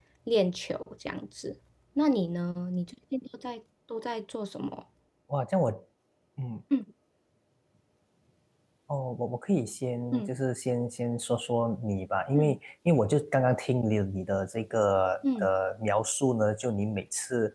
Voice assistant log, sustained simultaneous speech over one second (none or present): none